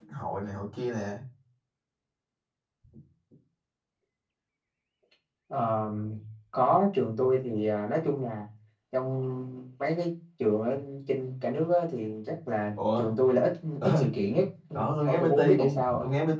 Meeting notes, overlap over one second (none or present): present